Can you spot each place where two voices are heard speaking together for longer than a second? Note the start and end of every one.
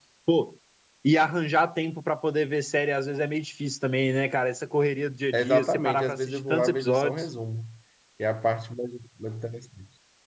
5.3-7.3

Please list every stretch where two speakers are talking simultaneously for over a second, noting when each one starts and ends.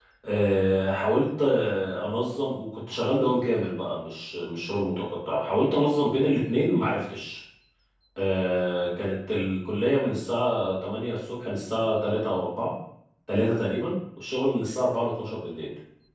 none

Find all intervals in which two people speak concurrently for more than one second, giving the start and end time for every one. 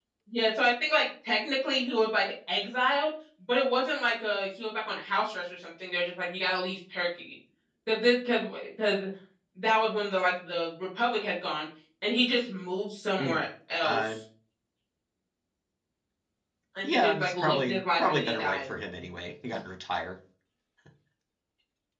16.8-18.6

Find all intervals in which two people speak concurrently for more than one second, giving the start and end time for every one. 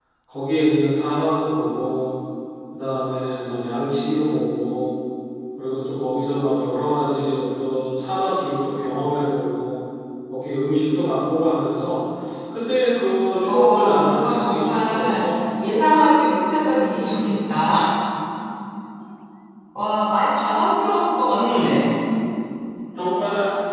13.5-15.3

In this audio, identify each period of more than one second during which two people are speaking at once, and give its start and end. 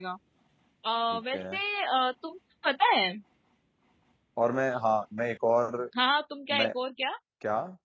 none

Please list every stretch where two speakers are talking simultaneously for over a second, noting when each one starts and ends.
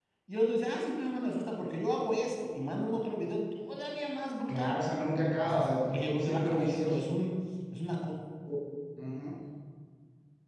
5.4-7.1

